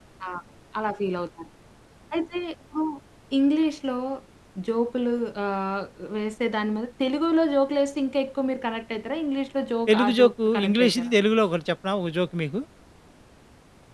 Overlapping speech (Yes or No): Yes